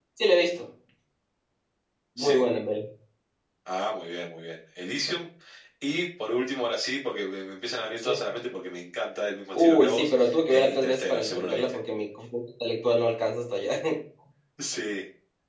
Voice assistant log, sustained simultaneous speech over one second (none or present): present